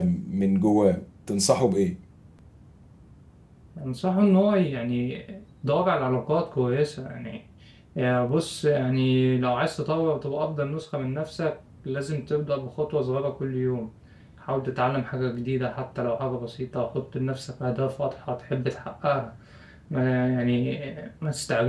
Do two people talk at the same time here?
No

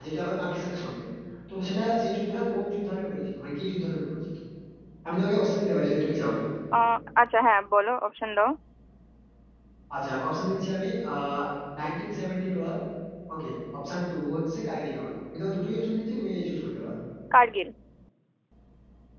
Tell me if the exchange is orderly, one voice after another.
Yes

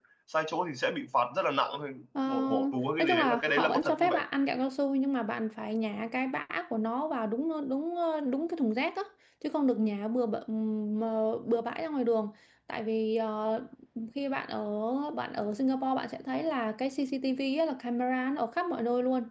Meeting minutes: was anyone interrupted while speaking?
Yes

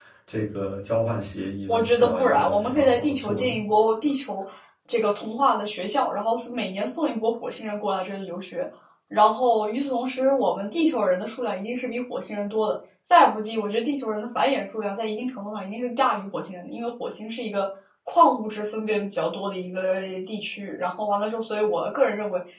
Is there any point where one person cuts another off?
Yes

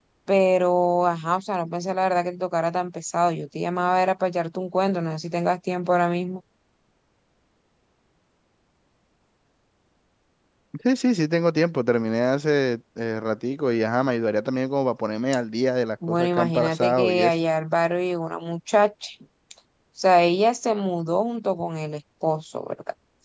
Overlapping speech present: Yes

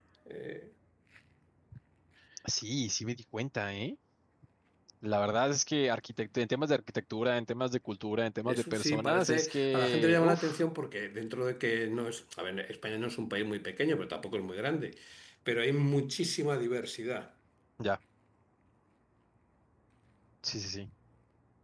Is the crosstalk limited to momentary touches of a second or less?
No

